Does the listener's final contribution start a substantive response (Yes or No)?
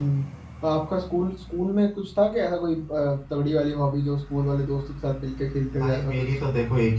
Yes